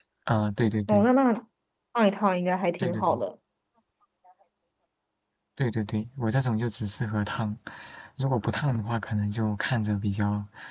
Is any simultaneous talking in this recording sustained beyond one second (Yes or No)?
No